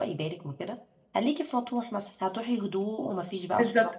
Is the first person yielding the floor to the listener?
Yes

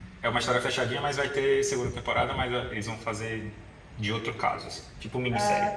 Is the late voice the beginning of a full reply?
Yes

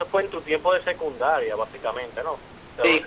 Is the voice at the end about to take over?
Yes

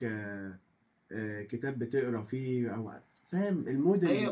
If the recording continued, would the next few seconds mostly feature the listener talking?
Yes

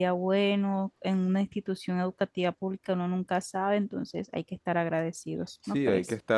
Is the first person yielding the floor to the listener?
Yes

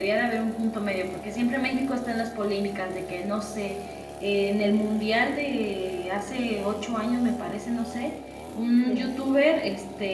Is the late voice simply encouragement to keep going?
Yes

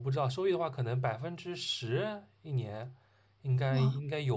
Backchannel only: Yes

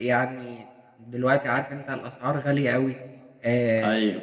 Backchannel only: Yes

